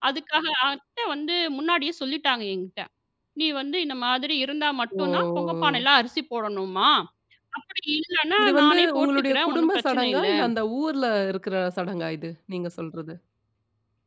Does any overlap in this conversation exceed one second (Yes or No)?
Yes